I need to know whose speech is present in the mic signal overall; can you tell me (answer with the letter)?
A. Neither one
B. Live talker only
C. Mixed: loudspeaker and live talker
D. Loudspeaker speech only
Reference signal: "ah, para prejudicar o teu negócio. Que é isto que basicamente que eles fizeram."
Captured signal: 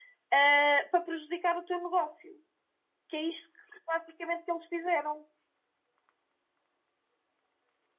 D